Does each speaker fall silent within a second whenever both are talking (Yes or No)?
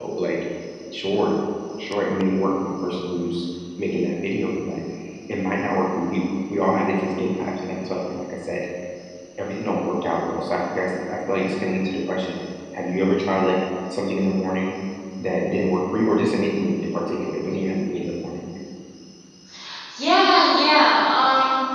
Yes